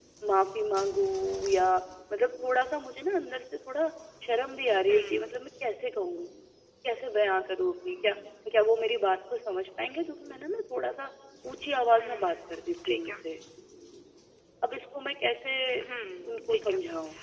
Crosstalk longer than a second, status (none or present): present